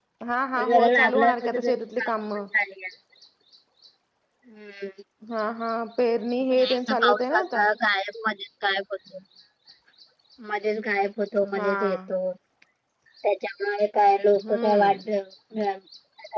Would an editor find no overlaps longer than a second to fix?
No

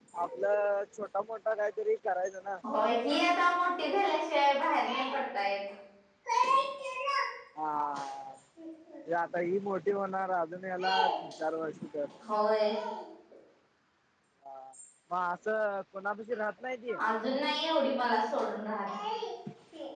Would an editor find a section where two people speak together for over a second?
No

